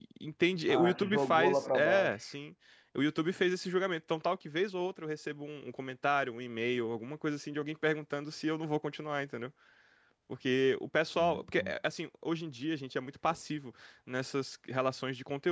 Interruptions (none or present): present